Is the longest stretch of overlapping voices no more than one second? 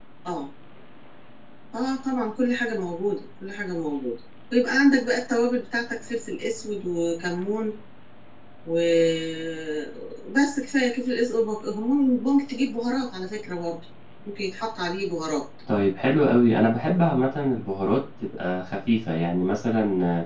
Yes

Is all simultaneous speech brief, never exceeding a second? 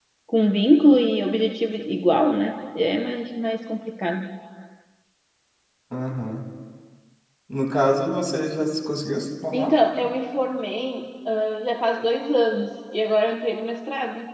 Yes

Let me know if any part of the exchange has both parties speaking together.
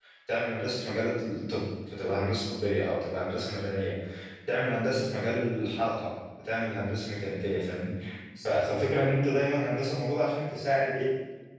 No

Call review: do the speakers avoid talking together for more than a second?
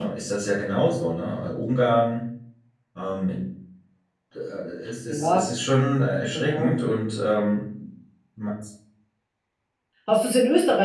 Yes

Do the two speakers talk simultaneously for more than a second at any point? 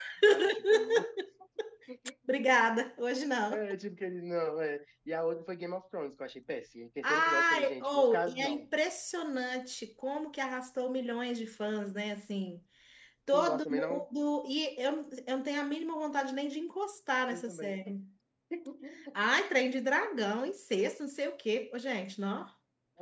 Yes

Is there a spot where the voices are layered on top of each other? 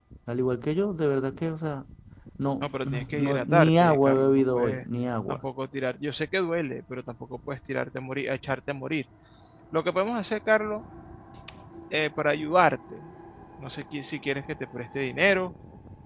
Yes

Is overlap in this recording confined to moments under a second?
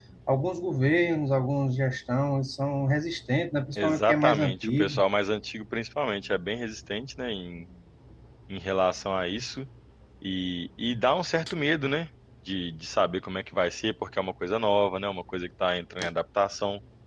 No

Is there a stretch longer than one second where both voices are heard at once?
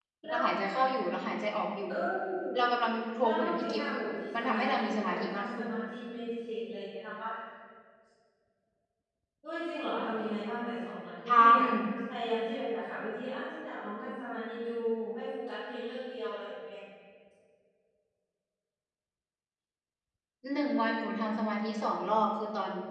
Yes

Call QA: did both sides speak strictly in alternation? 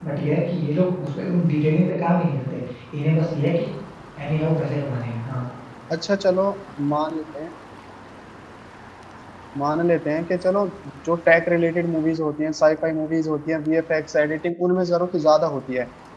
Yes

